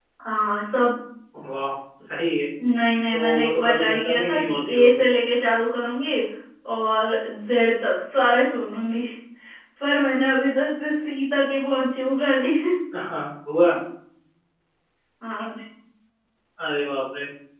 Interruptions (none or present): present